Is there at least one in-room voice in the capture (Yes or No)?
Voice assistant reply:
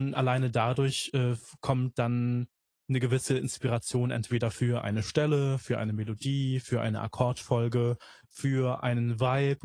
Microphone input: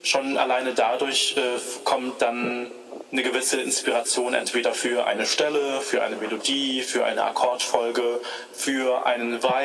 No